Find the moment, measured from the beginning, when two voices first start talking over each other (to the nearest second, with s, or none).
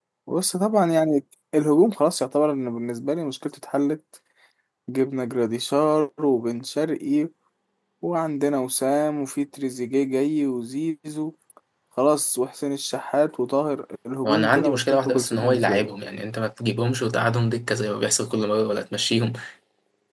14 s